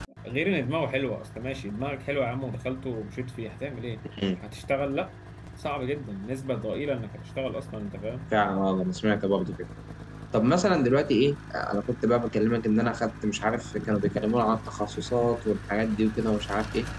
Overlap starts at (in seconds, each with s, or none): none